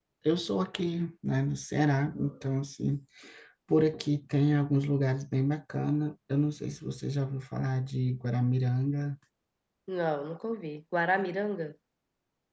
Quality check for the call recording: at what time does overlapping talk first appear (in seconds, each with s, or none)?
none